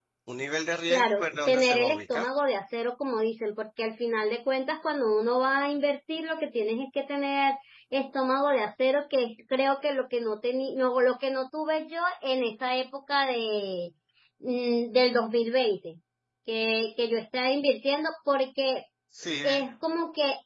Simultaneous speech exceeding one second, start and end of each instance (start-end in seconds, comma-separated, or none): 0.9-2.3